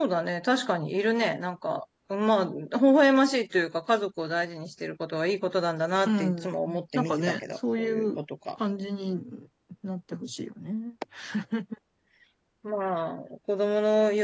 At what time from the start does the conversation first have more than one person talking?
6.0 s

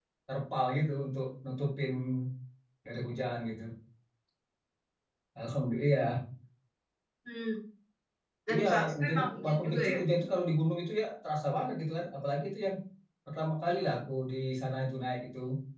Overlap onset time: 8.5 s

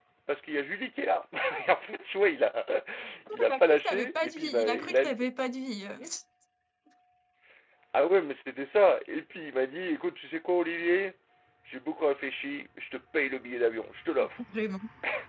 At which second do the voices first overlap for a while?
3.5 s

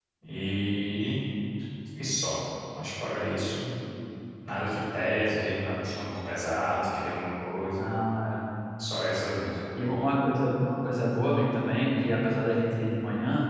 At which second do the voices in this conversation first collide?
none

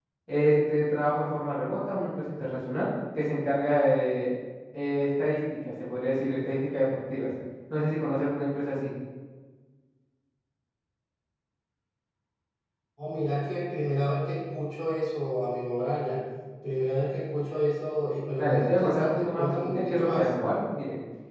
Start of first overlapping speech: 18.4 s

